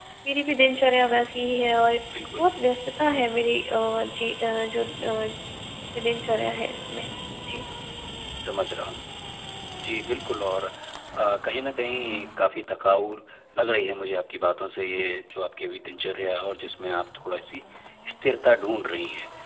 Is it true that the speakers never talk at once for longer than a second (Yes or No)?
Yes